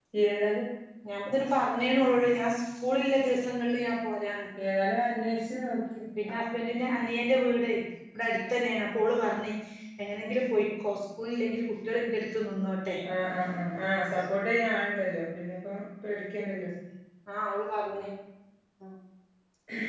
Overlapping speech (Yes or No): No